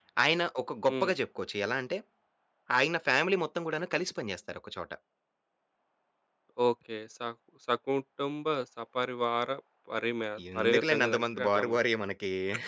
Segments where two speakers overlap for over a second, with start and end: 10.6-11.8

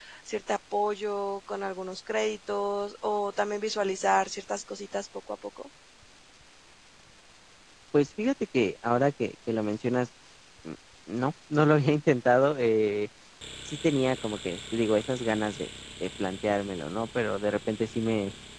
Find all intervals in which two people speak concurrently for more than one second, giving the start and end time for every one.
none

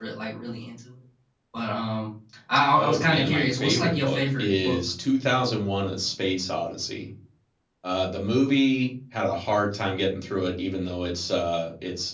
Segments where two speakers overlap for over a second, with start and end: 2.8-4.8

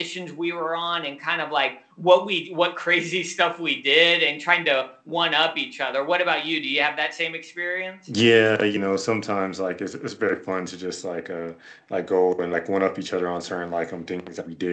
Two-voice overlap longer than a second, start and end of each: none

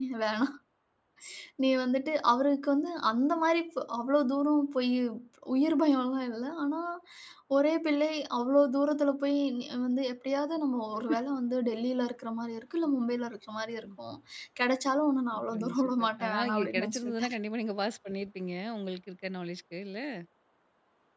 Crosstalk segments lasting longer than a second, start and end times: 15.3-17.4

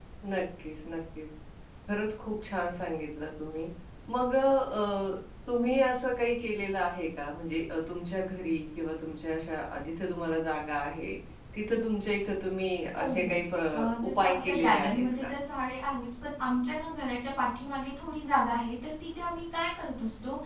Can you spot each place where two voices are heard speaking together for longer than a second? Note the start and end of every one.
13.8-15.3

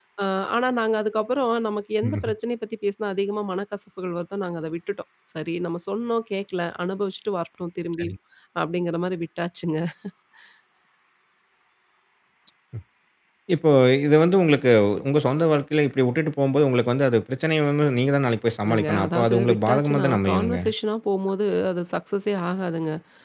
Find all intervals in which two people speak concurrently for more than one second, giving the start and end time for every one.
18.6-20.6

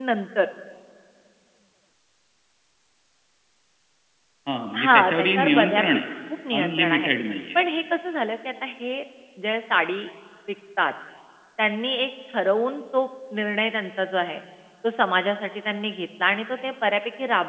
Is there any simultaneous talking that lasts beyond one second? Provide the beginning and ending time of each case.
4.8-6.0

